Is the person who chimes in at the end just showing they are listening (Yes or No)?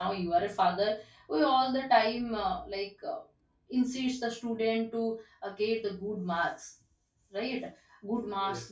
Yes